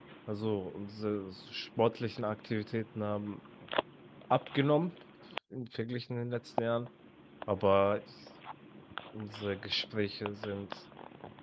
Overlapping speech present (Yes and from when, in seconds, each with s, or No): No